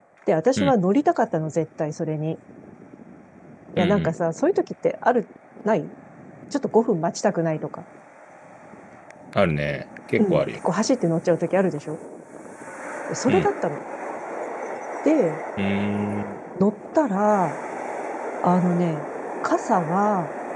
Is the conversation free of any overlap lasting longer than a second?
Yes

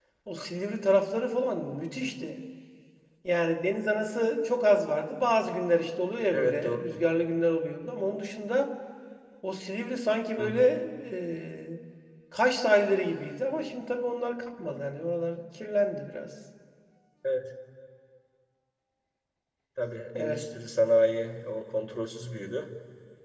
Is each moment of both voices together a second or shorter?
Yes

